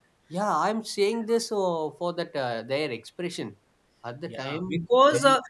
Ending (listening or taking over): taking over